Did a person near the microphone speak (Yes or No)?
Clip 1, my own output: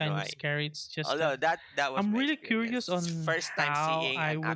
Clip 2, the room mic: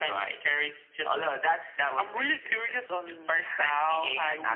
No